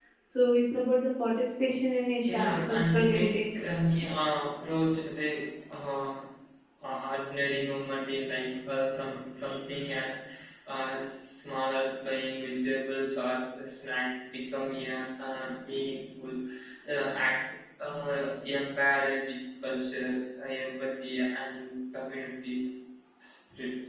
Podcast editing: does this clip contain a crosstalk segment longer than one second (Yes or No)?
Yes